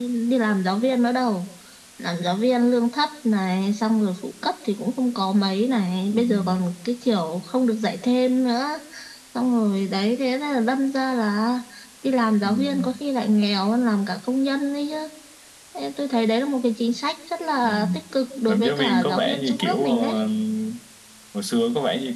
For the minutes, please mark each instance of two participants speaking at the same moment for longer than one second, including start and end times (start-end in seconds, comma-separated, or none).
18.5-20.1